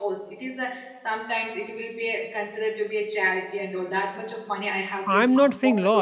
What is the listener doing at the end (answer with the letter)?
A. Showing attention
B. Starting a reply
B